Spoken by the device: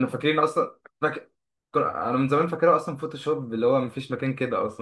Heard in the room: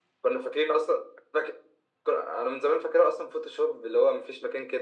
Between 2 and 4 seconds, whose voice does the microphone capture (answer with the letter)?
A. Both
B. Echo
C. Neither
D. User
B